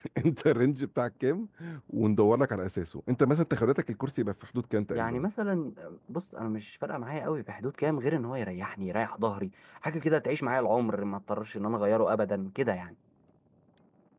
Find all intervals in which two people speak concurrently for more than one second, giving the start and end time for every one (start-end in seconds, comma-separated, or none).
none